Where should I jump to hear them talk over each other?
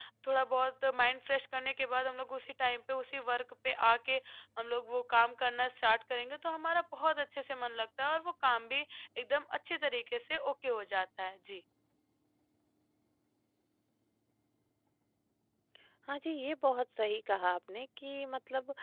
none

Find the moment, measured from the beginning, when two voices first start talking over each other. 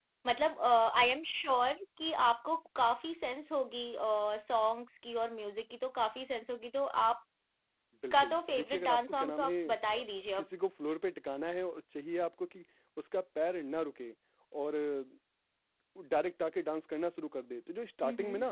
8 s

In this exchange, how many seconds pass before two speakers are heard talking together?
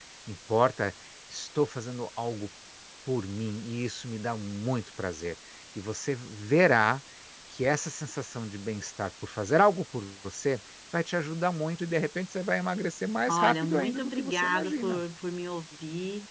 13 s

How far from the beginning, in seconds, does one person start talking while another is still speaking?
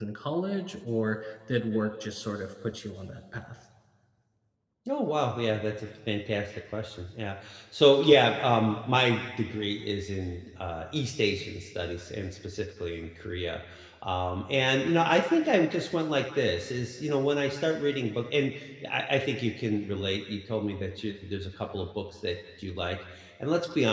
none

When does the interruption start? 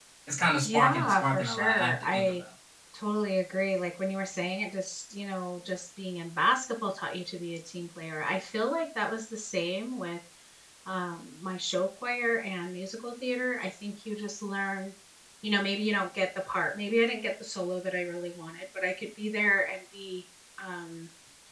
1 s

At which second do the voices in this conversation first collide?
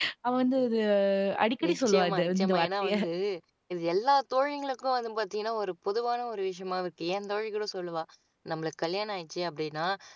2 s

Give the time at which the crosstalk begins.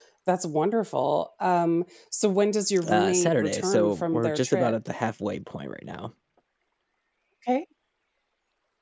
3 s

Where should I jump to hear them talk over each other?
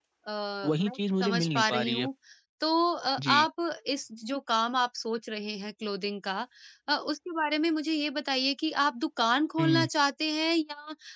1 s

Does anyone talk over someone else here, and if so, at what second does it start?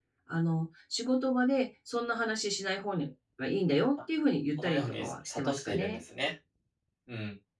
5 s

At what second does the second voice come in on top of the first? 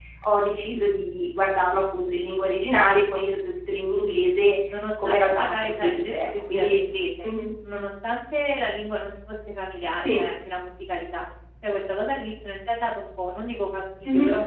5 s

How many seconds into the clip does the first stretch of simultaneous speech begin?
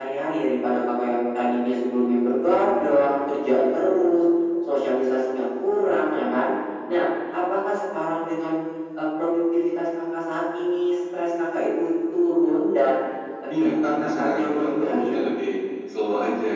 14 s

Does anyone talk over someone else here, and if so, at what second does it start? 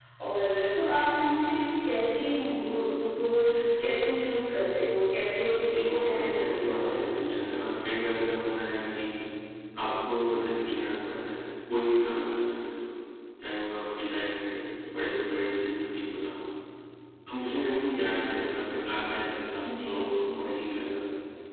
6 s

